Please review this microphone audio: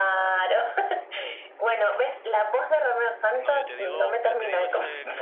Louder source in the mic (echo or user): echo